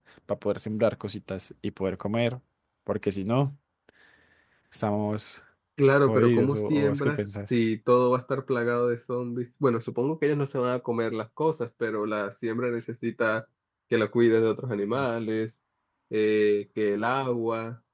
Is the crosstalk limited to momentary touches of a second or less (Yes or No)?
No